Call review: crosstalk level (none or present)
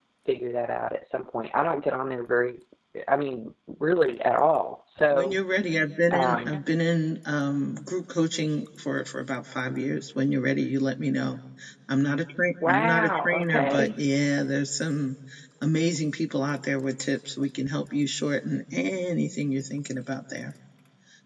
present